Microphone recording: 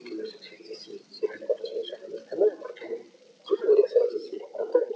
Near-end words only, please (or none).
none